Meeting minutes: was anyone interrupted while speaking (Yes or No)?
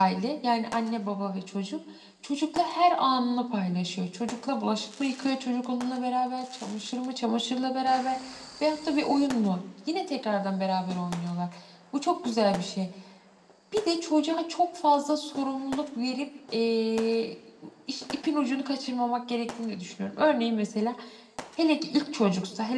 No